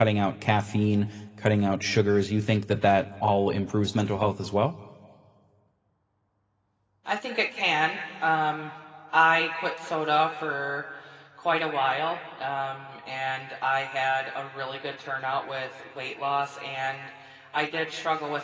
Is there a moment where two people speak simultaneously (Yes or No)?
No